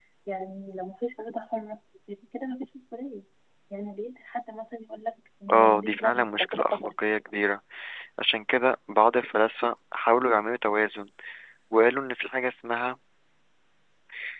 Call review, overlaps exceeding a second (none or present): present